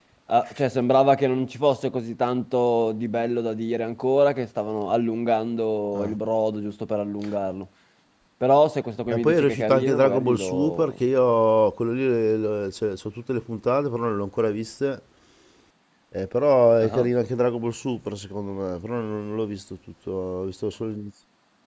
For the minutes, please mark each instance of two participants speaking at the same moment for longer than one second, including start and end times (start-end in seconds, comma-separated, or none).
9.1-10.9